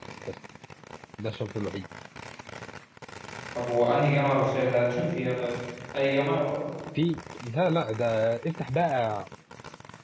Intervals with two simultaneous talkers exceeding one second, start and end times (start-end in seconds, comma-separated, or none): none